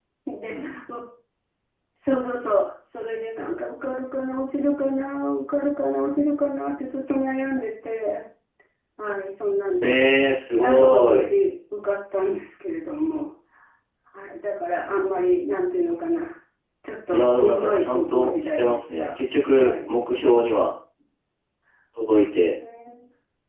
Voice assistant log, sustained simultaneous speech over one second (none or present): present